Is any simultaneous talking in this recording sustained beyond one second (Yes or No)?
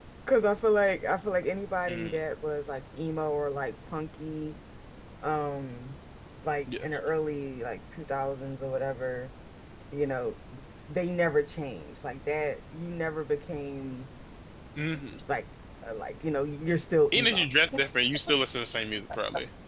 No